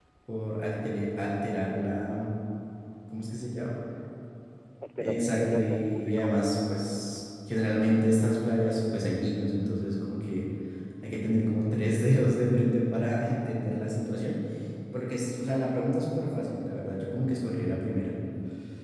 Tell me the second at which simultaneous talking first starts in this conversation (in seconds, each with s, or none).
5.0 s